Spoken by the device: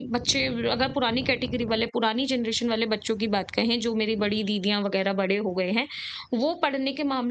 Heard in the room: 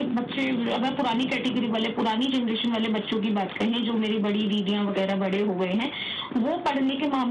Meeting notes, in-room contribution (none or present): none